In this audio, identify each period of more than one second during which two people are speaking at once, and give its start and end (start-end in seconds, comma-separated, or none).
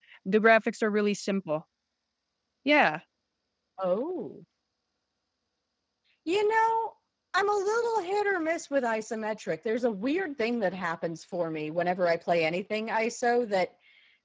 none